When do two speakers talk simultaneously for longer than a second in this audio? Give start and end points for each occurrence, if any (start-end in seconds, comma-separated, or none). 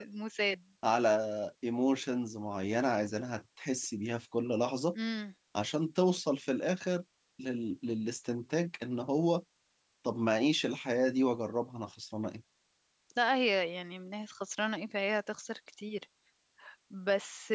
none